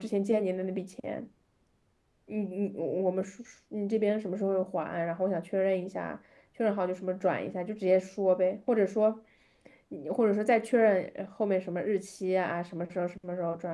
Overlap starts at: none

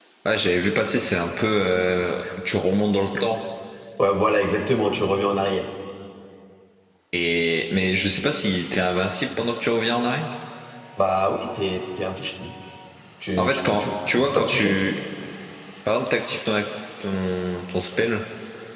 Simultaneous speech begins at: 13.4 s

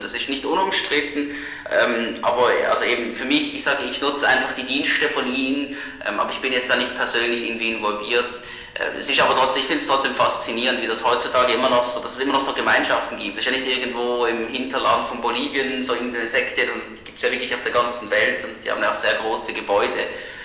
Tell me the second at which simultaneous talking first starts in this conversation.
none

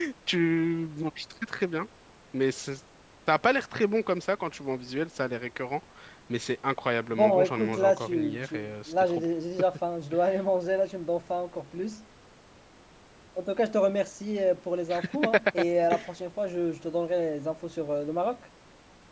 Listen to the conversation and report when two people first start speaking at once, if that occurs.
7.1 s

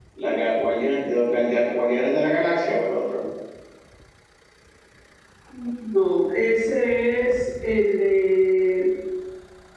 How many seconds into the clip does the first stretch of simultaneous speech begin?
none

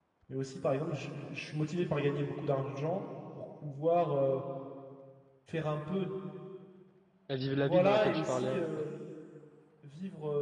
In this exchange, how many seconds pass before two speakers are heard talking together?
7.6 s

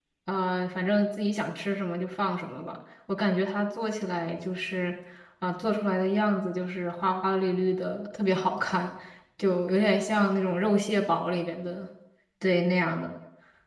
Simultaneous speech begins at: none

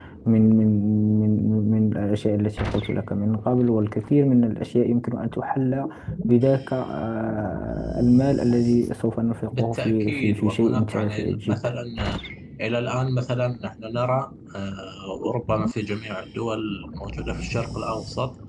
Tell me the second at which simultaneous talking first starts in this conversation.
9.5 s

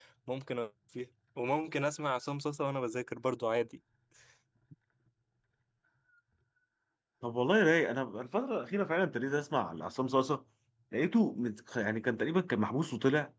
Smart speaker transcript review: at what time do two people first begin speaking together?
none

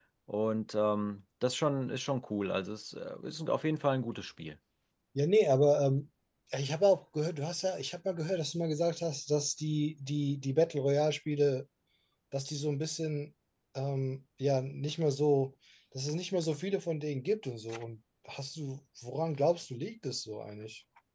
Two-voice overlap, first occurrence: none

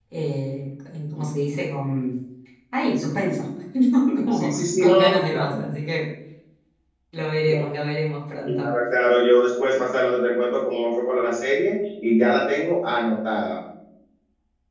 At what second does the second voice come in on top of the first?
4.3 s

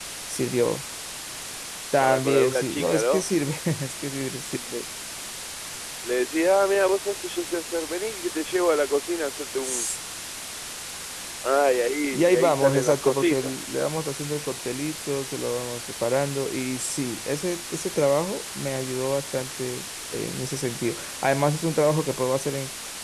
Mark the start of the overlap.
2.0 s

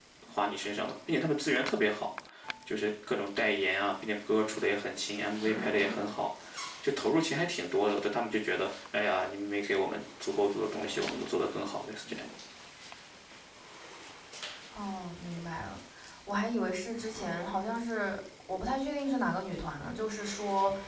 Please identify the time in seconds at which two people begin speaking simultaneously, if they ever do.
none

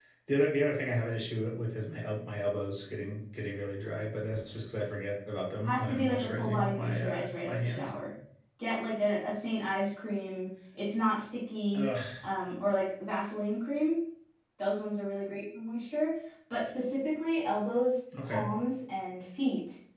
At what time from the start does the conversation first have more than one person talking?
5.6 s

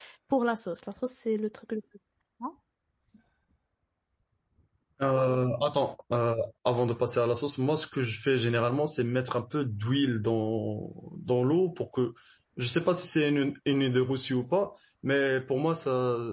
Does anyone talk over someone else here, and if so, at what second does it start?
none

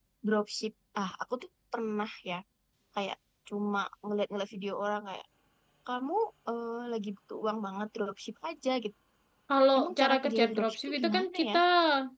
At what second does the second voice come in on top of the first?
9.8 s

